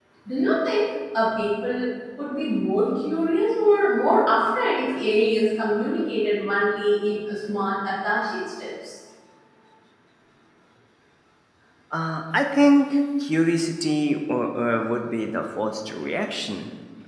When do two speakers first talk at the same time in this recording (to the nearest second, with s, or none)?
none